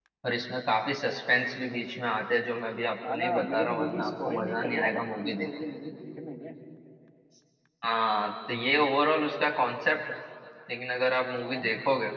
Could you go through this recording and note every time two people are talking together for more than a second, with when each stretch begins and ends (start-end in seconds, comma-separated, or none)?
3.1-5.5